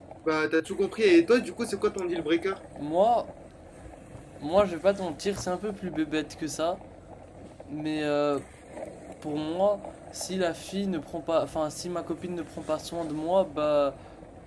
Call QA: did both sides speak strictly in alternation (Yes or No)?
Yes